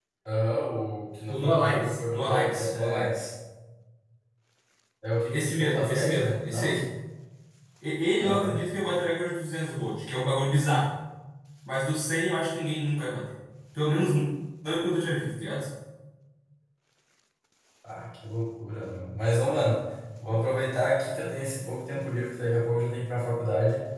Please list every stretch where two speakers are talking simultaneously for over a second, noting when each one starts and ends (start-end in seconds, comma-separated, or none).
1.3-3.1, 5.3-6.8